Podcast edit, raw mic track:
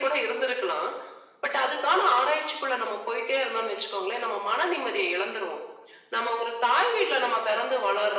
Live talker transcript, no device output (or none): none